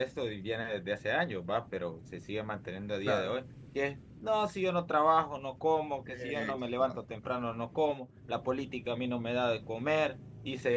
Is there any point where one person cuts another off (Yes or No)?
Yes